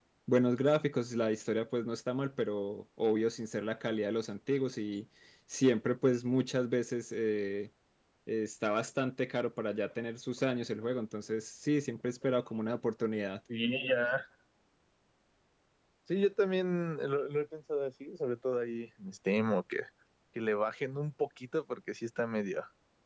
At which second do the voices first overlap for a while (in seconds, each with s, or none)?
none